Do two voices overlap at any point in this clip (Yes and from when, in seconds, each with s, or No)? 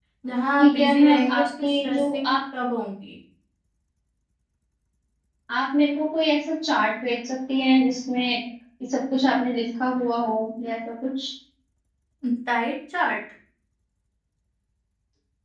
Yes, from 0.6 s